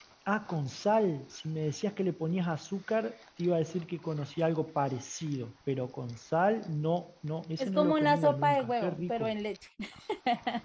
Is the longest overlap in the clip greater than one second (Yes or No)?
Yes